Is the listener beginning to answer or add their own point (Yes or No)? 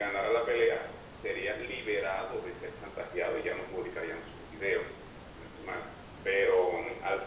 No